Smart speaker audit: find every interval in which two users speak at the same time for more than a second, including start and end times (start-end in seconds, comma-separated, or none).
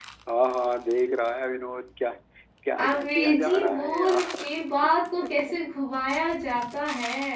2.8-4.5